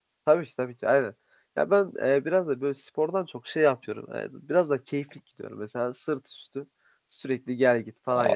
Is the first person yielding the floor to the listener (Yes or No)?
No